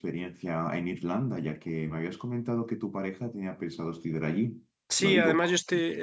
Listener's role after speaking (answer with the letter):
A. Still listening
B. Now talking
B